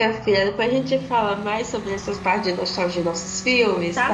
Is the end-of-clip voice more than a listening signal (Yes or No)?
Yes